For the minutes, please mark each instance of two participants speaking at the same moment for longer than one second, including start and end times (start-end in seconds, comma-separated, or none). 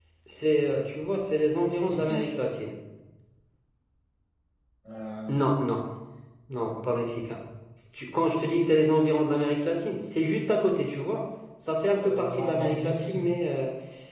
11.9-13.2